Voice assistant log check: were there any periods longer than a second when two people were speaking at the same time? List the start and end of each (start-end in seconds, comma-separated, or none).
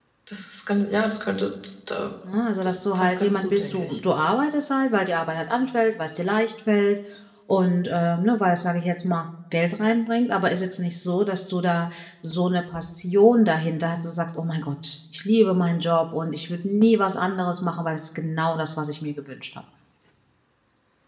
2.6-3.9